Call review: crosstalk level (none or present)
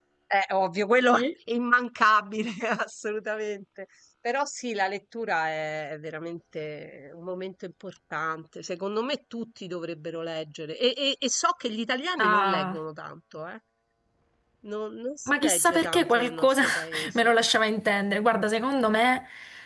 present